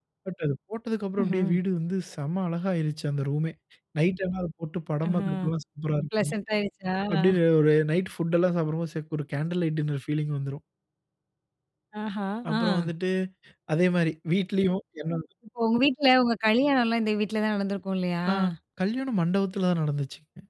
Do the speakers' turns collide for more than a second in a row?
No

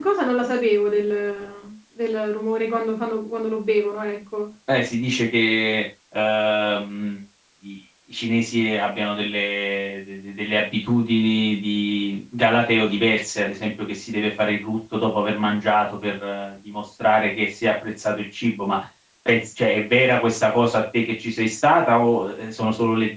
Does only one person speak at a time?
Yes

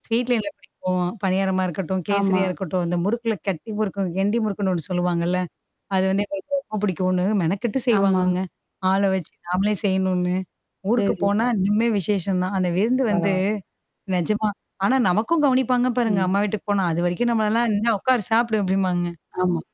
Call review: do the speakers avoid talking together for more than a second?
Yes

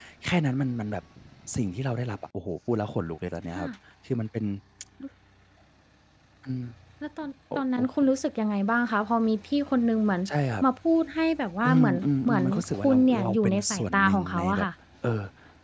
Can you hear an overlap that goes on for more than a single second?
Yes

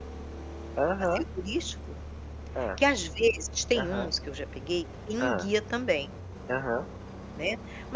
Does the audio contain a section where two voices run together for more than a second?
No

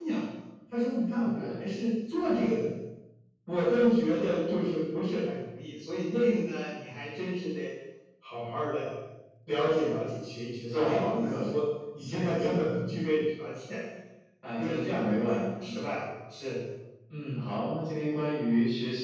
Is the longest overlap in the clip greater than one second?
Yes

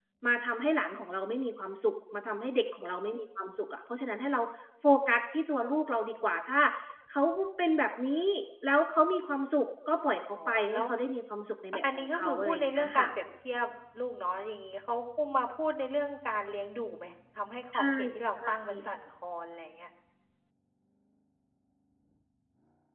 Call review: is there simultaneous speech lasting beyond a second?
Yes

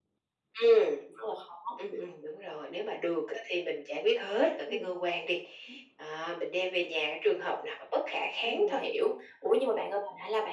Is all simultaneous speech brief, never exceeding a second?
Yes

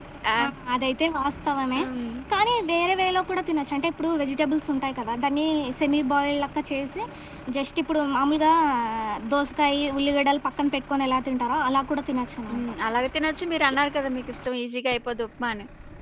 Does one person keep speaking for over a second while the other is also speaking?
No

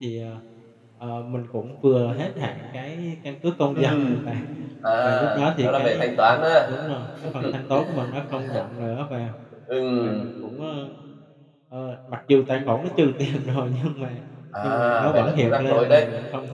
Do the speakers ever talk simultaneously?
Yes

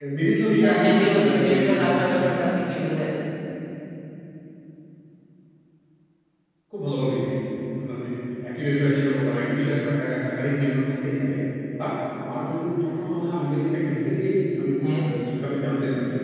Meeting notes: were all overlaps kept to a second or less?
No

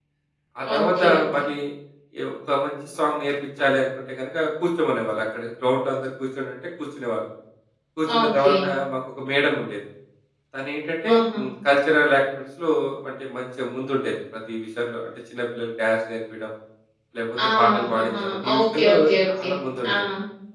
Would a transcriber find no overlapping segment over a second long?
No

